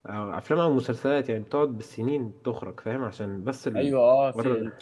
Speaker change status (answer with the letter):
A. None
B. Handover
B